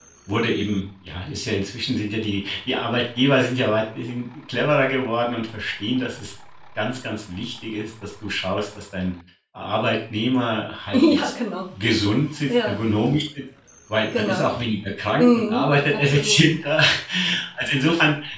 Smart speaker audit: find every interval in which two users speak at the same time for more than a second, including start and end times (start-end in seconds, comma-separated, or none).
15.2-16.4